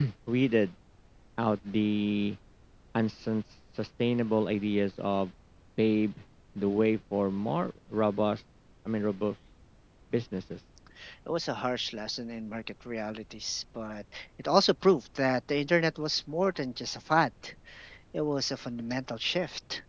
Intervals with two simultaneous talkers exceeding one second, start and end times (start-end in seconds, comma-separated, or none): none